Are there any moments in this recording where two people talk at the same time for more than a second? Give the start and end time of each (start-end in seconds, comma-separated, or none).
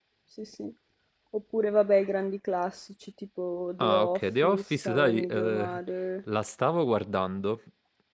3.8-5.8